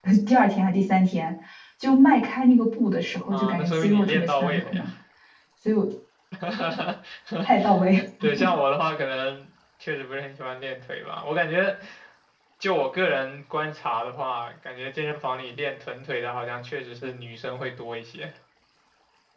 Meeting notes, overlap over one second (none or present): present